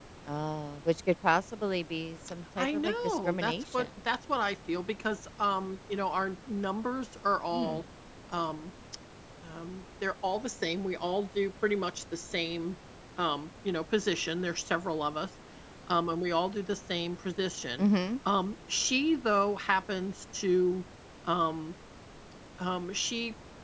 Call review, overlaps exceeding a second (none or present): present